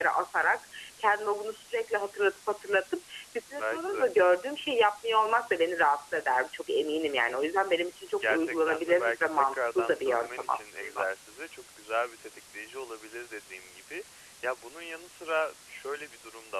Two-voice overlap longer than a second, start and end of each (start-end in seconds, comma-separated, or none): 8.2-11.1